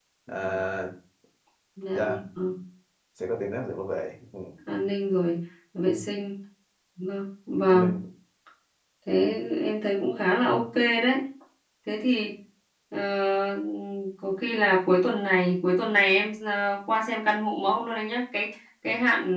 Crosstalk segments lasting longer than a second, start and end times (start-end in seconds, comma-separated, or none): none